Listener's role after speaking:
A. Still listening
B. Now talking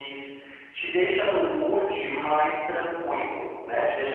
A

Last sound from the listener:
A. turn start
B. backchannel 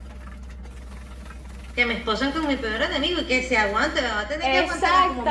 A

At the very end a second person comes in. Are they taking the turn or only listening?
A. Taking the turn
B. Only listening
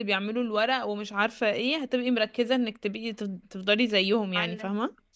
A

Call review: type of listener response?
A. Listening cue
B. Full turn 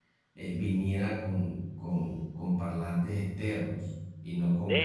B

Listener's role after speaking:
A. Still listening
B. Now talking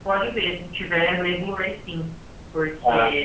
A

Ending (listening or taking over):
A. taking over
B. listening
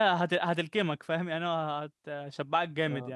A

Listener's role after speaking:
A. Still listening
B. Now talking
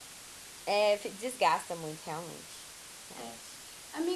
B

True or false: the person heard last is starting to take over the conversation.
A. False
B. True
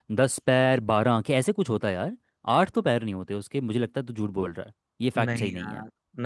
B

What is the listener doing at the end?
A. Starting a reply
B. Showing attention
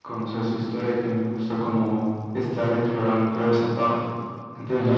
A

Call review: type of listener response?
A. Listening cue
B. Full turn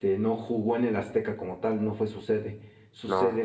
A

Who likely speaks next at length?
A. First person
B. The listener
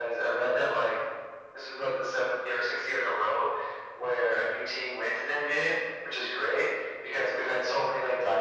A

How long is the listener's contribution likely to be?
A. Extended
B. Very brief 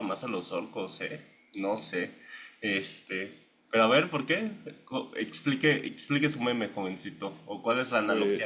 B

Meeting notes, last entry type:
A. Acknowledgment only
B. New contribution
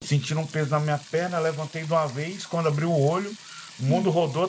A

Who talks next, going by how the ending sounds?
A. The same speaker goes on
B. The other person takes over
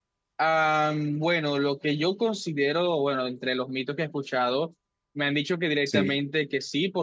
A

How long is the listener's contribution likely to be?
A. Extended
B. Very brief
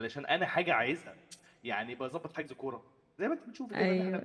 B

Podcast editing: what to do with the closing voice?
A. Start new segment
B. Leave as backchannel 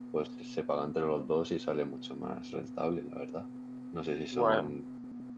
B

